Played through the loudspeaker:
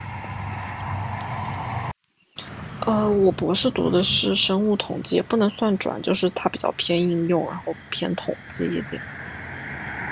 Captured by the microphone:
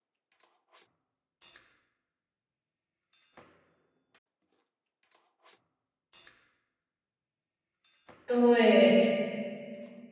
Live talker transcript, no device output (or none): 对，